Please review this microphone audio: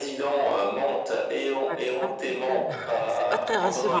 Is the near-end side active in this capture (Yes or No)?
Yes